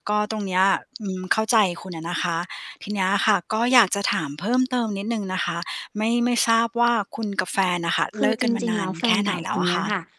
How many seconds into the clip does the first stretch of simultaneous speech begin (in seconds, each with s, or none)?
8.1 s